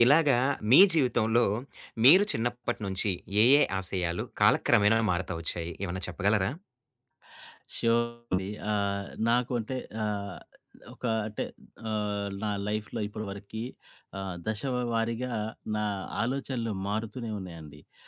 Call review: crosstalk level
none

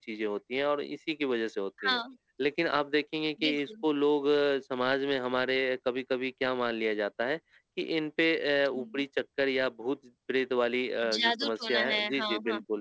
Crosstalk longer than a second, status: present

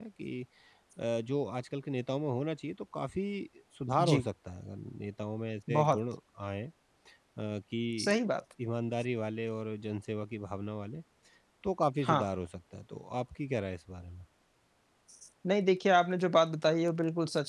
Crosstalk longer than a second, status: none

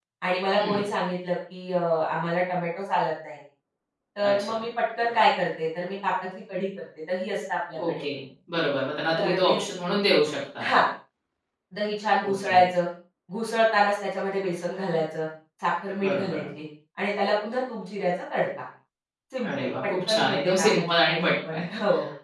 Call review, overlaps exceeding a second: present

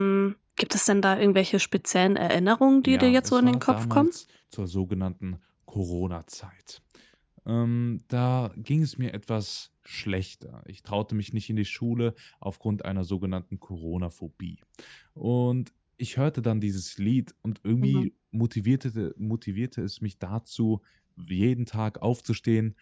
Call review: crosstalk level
present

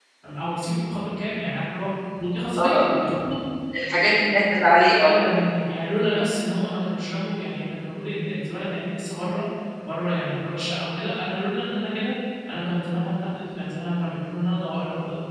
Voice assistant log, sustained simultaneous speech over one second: none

